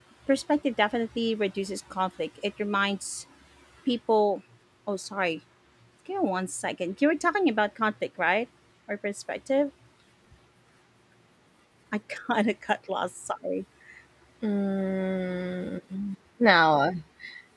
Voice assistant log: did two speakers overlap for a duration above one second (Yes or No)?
No